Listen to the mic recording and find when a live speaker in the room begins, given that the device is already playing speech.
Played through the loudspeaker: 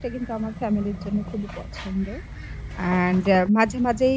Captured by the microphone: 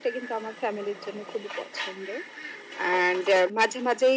none

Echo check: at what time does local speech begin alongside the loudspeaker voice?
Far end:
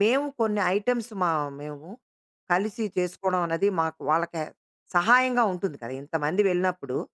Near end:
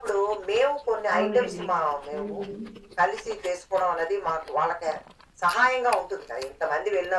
1.1 s

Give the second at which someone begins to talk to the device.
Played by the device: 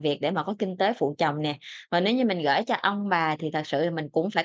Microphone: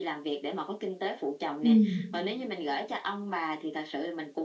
1.6 s

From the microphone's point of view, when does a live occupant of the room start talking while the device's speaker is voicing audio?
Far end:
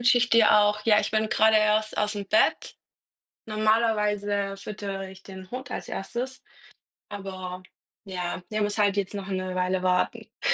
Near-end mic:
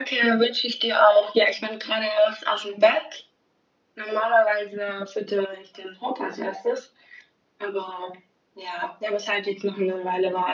none

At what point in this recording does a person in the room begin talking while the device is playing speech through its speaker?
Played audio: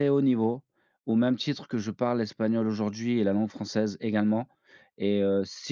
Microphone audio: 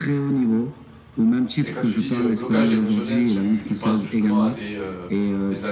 1.6 s

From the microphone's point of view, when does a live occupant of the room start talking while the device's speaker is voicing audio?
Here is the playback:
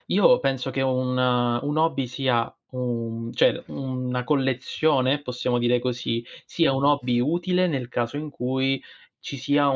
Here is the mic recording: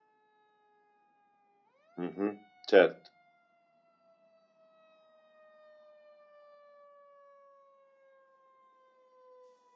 2.0 s

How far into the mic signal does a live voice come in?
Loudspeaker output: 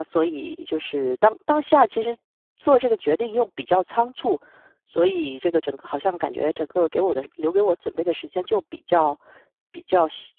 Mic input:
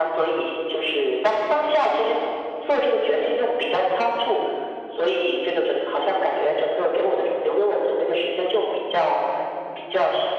none

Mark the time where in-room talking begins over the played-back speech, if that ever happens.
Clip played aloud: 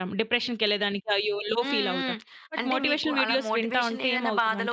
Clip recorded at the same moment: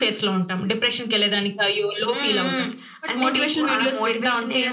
none

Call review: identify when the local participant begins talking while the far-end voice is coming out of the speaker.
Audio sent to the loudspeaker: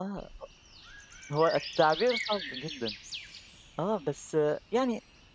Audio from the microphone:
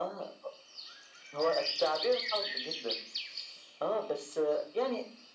none

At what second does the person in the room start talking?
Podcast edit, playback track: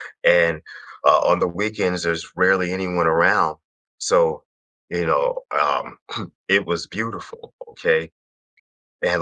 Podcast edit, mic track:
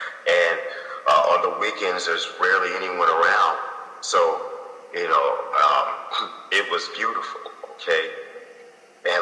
none

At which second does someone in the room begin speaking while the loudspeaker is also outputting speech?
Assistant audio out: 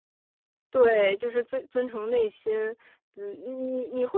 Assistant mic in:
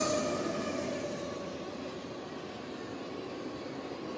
none

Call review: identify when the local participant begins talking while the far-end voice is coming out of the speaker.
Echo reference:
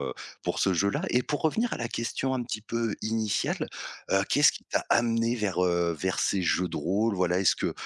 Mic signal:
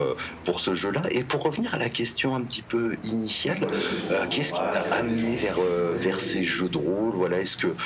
3.4 s

